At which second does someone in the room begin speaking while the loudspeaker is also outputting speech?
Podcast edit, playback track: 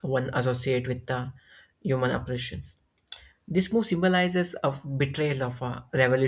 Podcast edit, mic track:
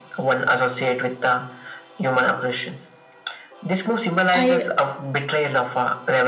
4.3 s

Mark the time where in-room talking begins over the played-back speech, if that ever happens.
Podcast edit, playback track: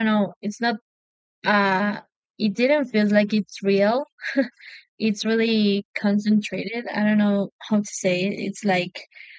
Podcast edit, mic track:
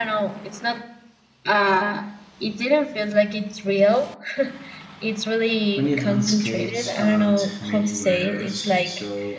5.7 s

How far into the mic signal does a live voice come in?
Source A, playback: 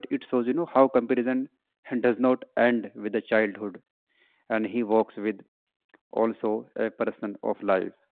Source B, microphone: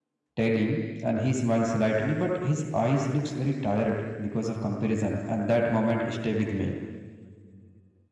0.4 s

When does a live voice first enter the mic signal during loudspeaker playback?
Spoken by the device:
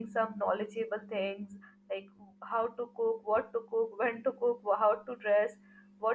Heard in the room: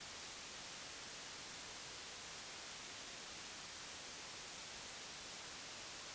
none

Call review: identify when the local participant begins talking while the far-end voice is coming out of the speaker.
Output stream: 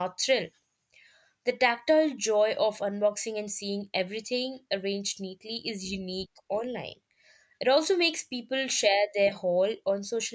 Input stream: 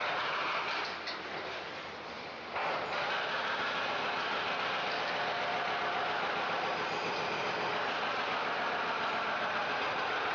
none

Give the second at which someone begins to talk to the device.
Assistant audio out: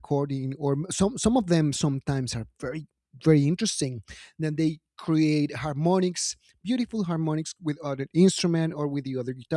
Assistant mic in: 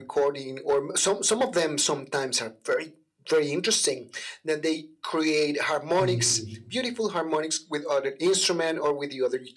6.0 s

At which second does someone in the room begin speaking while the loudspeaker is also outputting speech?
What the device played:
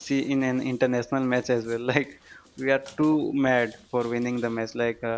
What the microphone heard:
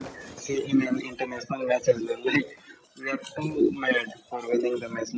none

